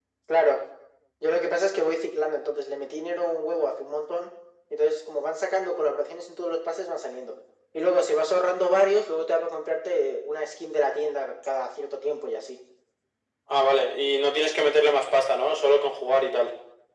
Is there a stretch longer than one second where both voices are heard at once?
No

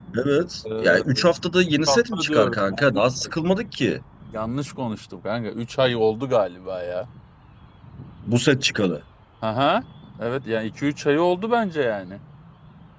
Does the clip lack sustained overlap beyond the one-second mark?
No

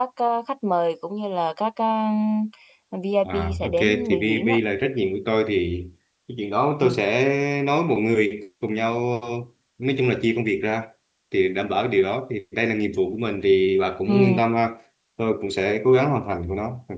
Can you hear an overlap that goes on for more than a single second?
Yes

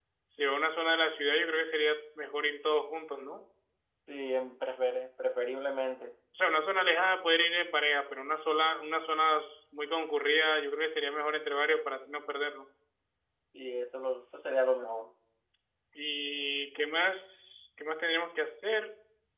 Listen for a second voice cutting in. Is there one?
No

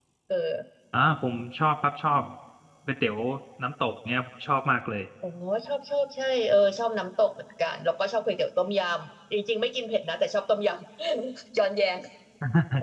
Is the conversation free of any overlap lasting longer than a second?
Yes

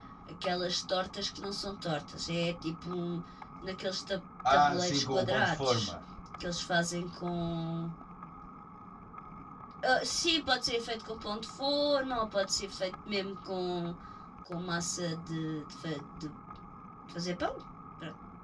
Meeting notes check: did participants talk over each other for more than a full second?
Yes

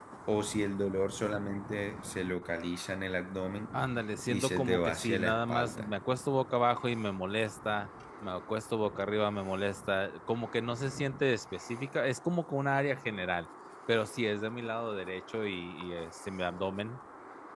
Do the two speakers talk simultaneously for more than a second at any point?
Yes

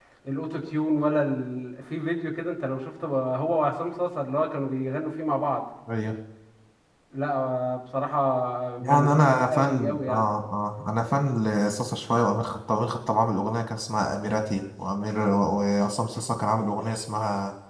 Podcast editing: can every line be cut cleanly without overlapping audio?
No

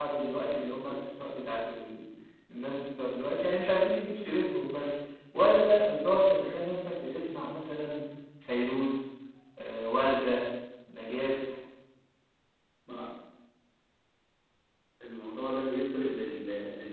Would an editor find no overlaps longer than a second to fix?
Yes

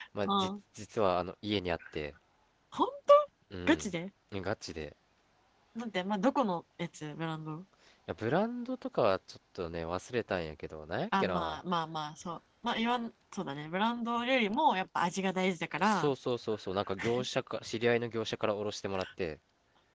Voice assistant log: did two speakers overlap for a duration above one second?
No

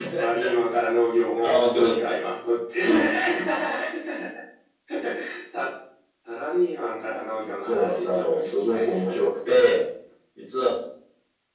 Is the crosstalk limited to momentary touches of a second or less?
No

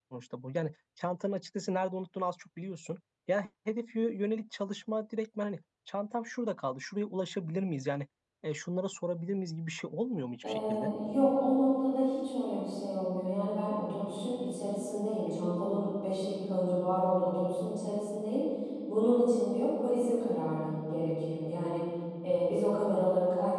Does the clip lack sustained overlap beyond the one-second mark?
Yes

